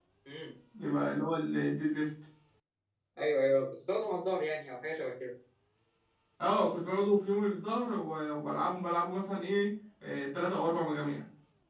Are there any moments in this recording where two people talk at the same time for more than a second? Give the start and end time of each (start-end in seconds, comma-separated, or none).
none